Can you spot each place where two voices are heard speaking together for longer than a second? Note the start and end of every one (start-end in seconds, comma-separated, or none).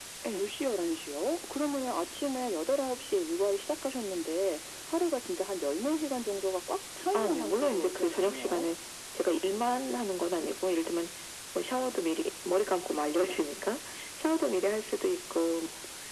7.1-8.7